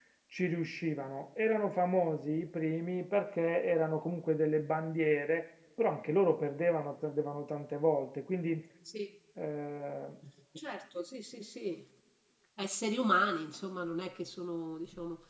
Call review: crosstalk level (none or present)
none